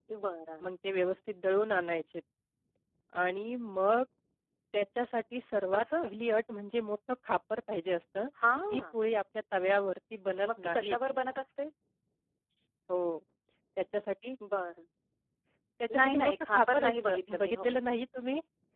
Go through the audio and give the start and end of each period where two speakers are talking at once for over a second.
15.9-17.7

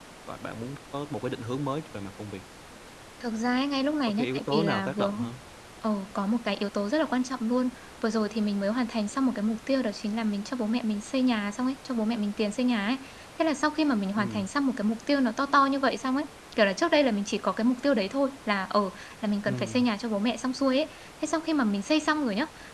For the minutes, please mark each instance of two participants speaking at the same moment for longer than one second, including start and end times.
4.1-5.3

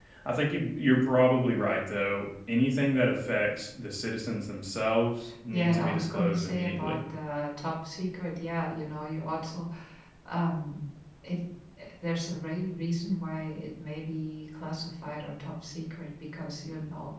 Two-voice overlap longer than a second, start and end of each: 5.5-7.0

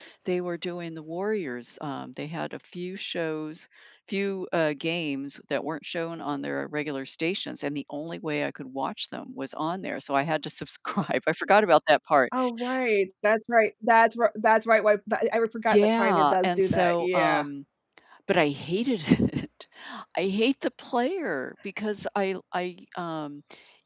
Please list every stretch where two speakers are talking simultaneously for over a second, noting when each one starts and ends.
15.7-17.4

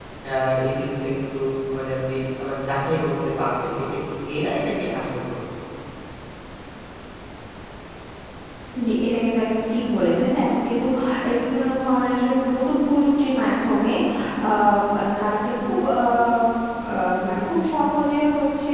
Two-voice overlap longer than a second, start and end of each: none

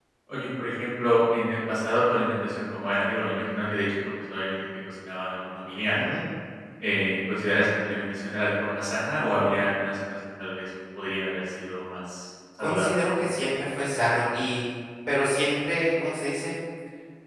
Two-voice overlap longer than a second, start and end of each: none

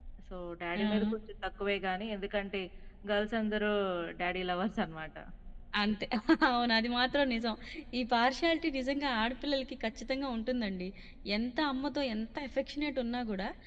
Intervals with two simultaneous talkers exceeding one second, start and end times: none

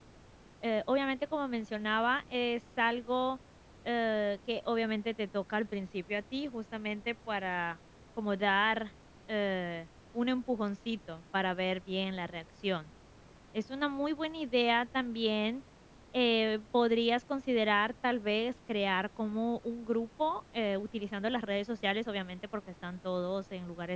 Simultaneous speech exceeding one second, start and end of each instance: none

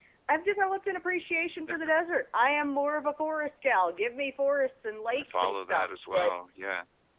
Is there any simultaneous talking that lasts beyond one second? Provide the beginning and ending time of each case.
5.1-6.3

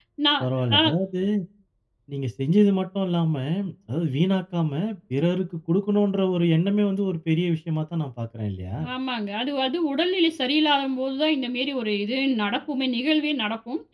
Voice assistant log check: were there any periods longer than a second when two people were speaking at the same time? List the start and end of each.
none

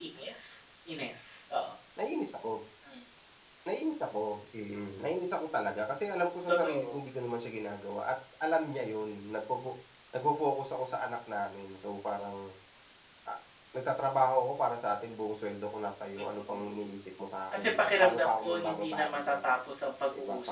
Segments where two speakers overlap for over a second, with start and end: 17.5-19.3

